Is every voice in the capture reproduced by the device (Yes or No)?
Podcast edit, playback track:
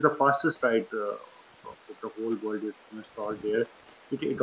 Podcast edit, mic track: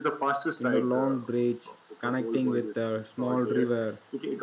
No